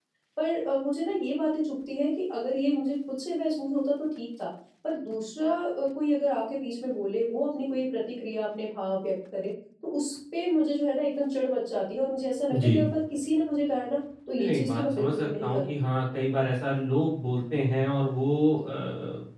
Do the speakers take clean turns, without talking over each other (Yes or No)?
No